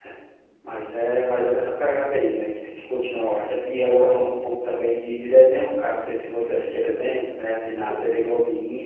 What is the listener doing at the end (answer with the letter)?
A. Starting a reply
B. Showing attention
B